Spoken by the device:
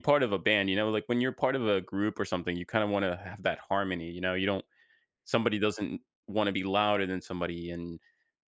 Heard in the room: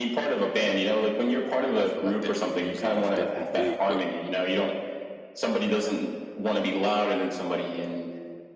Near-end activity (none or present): present